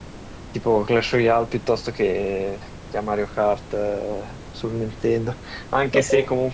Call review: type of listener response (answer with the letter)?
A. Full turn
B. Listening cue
B